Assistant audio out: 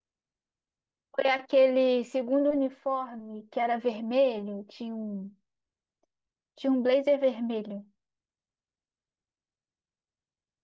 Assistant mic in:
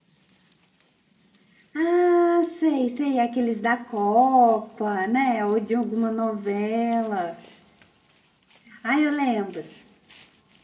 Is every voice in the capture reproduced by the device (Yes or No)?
No